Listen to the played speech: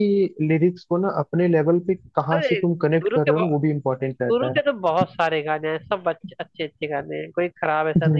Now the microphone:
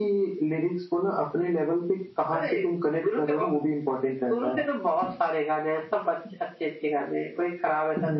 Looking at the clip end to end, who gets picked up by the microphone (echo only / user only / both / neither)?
echo only